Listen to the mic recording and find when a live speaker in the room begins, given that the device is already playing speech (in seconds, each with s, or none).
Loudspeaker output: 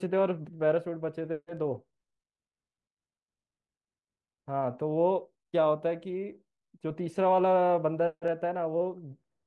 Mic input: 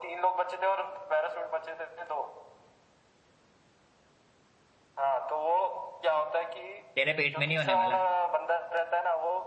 6.9 s